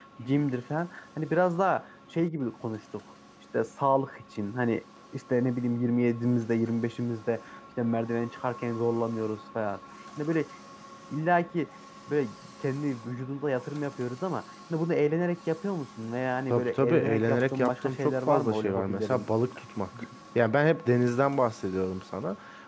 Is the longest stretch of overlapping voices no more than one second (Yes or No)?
No